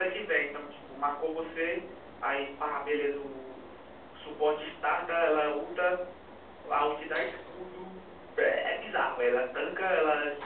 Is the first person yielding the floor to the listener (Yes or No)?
No